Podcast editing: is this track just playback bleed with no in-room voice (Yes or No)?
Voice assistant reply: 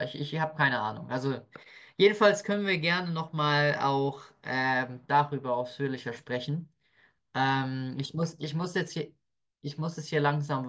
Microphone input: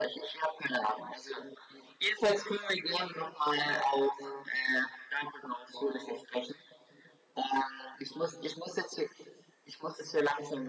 Yes